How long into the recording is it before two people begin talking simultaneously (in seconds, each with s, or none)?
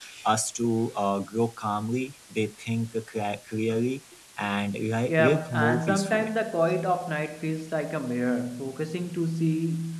5.1 s